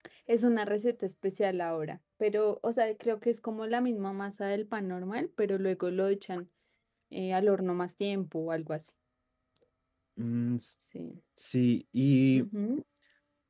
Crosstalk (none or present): none